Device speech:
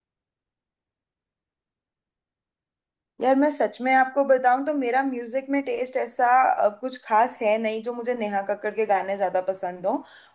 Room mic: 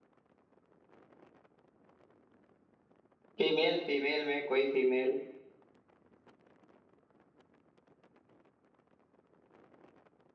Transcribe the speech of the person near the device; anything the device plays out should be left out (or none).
फीमेल फीमेल में कोई फीमेल